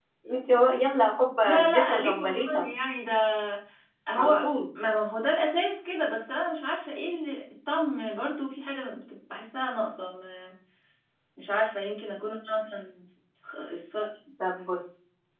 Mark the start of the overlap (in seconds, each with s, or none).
1.4 s